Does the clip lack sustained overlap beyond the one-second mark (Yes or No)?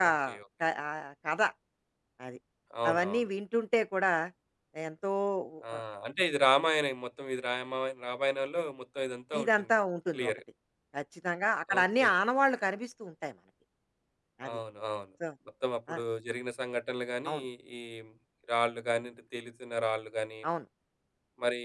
Yes